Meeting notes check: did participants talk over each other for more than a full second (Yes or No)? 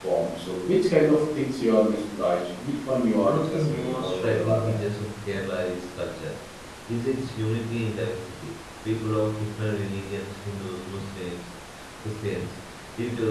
Yes